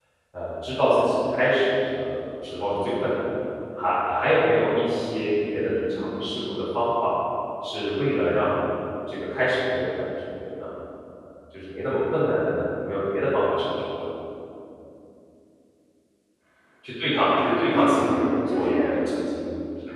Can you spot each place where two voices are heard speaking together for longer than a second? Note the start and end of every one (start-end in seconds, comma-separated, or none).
17.7-19.0